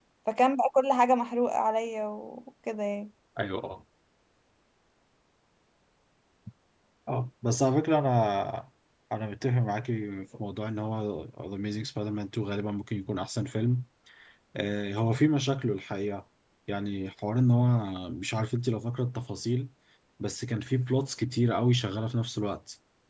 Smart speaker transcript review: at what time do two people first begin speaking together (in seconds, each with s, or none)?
none